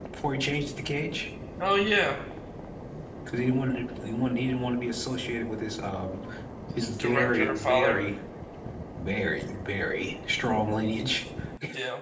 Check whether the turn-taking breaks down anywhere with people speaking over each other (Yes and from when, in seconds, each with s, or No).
Yes, from 6.8 s